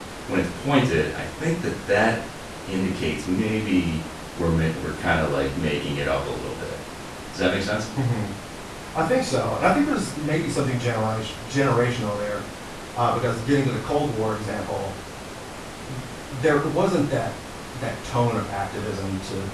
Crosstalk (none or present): none